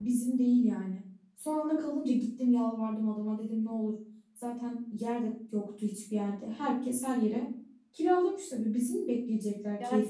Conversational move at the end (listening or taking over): taking over